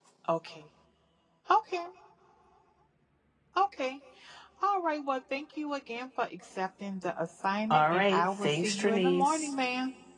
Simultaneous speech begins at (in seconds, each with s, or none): 7.7 s